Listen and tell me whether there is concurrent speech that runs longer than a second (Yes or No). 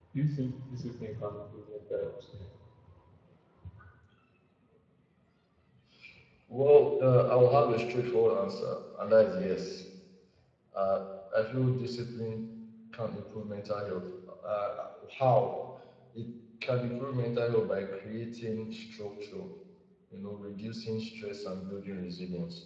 No